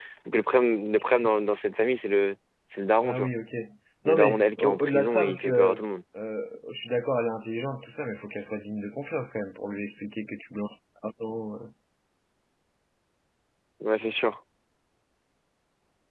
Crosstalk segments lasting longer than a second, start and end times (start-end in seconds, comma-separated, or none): 4.0-5.8